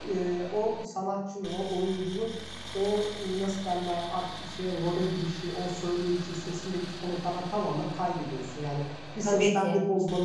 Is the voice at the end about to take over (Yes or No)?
No